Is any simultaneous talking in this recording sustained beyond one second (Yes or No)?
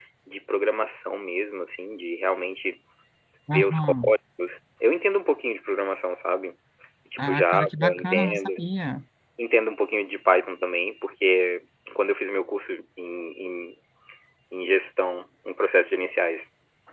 Yes